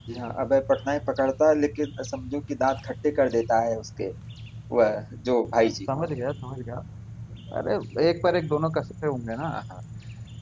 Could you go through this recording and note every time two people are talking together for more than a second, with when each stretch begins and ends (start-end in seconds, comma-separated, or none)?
none